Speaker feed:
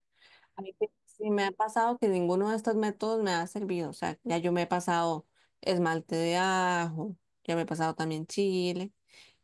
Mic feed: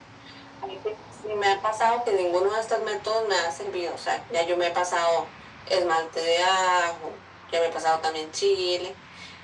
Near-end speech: none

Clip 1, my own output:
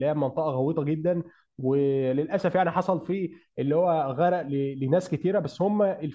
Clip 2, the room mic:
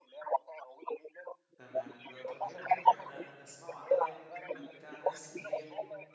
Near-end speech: present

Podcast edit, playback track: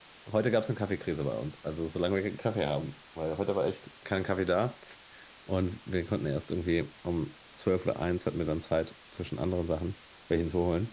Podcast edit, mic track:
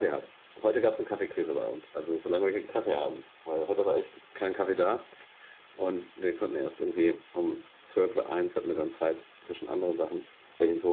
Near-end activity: none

